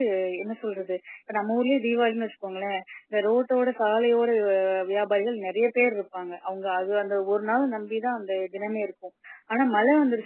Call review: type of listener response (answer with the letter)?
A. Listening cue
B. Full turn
A